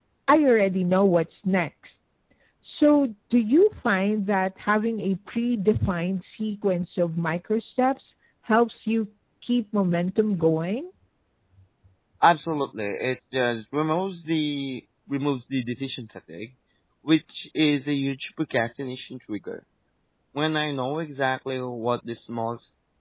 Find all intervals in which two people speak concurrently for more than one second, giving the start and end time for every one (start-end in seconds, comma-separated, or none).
none